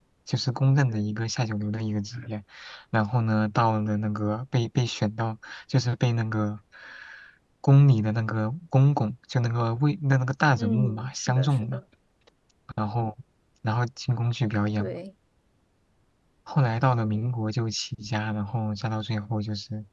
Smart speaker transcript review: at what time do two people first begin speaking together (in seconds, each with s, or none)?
10.6 s